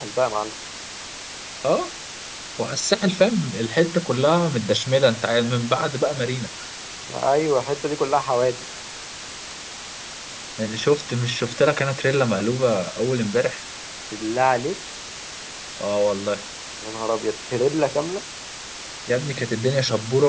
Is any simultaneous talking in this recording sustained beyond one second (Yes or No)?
No